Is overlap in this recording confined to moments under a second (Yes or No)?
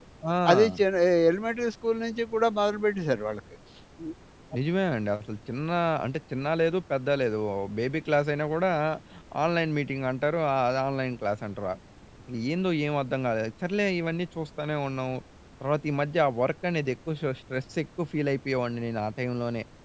Yes